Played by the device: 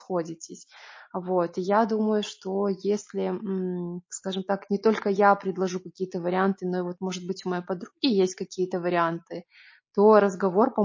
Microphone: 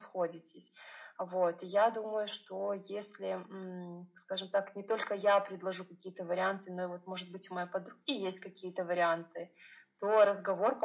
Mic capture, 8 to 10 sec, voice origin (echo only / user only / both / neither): echo only